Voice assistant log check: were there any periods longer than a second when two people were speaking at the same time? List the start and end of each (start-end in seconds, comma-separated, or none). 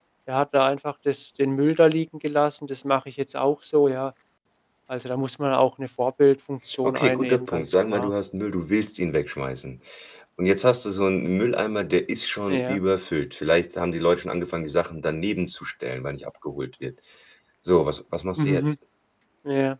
6.8-8.1